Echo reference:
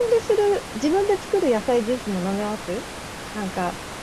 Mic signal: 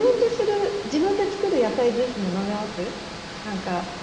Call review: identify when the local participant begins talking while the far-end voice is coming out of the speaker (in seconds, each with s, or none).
none